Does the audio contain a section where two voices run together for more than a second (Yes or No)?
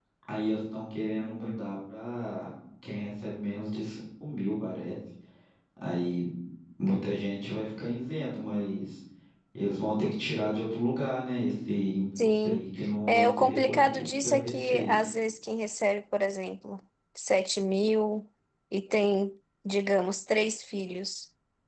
Yes